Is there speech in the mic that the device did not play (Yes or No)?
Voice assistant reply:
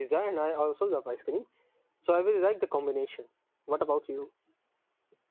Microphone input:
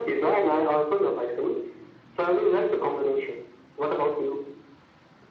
No